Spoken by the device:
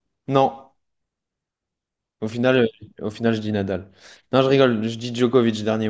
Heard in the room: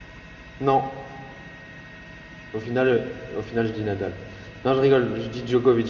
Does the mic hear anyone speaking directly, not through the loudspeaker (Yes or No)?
No